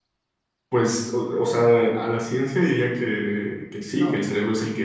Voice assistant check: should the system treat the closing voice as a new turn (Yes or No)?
No